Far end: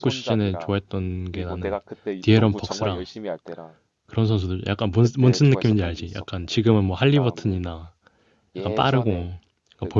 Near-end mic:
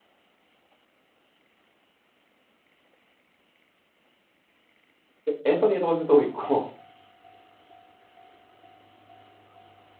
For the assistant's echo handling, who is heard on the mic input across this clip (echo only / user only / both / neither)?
user only